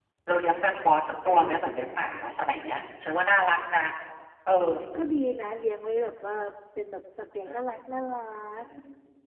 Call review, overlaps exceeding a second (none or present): none